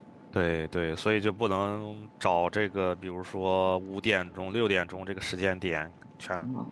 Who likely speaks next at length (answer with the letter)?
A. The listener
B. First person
B